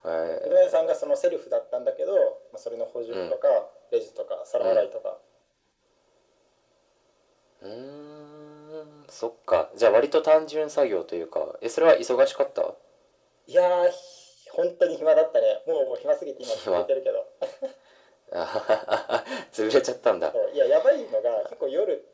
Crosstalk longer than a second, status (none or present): none